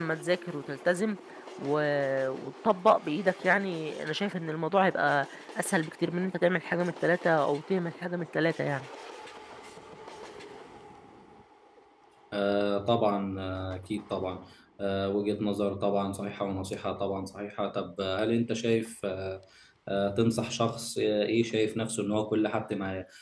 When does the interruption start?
none

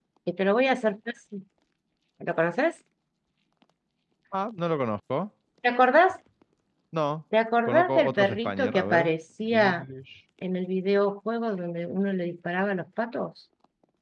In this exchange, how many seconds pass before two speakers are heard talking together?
7.7 s

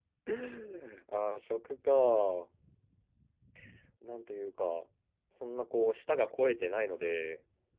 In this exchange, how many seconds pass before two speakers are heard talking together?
none

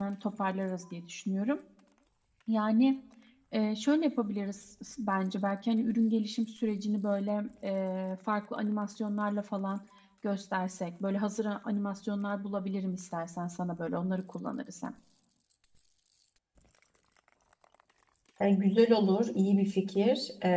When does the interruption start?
none

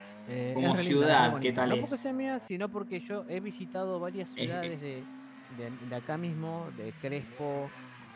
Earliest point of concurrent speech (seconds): 0.6 s

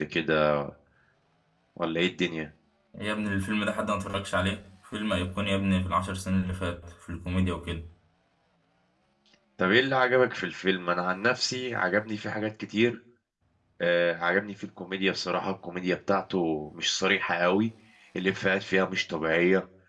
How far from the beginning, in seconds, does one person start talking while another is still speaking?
none

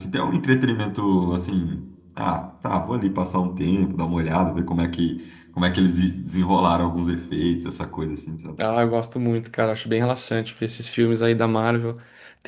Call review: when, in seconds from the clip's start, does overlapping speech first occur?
none

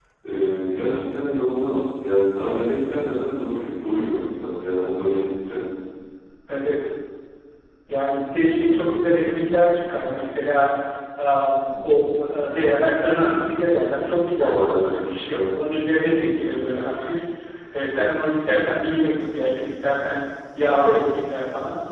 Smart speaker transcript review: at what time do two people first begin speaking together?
14.4 s

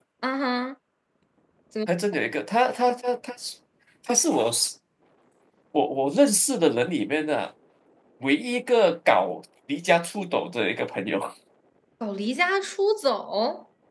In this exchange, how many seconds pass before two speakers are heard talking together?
none

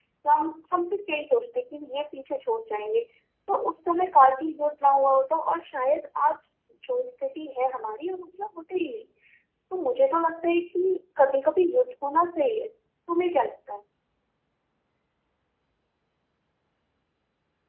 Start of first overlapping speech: none

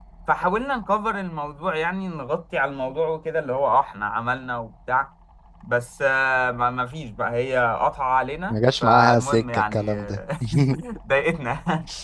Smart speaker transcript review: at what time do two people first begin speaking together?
8.5 s

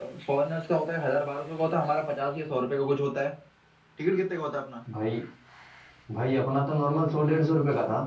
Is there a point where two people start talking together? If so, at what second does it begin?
none

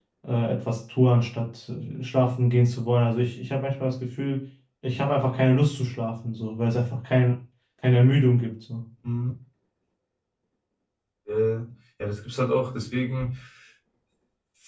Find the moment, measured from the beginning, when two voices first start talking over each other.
none

